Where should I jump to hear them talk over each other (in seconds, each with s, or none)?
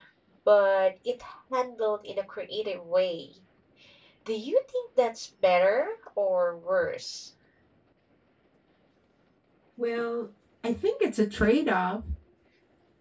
none